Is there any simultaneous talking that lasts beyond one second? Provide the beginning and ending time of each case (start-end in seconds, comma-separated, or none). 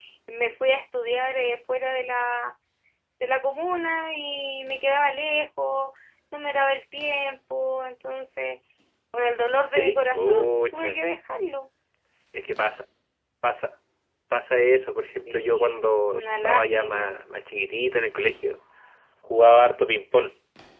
9.7-11.0, 15.3-17.1